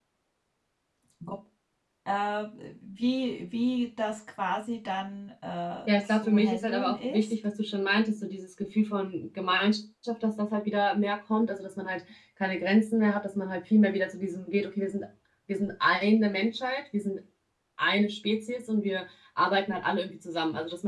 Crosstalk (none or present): present